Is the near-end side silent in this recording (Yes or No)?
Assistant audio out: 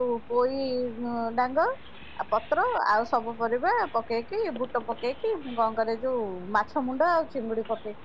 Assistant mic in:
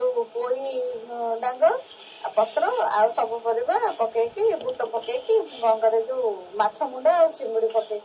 Yes